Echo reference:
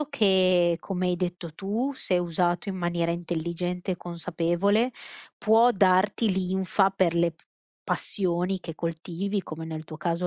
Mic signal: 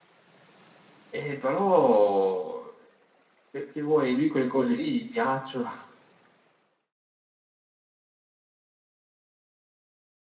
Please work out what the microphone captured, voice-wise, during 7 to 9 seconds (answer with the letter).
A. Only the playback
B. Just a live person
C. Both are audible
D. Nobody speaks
D